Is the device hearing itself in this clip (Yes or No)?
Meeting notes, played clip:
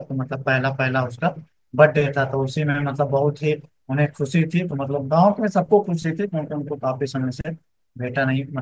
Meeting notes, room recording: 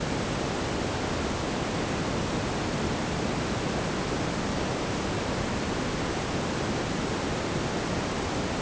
No